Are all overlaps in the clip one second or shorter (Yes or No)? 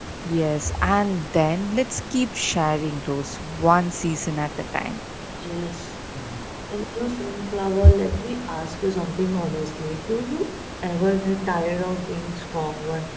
Yes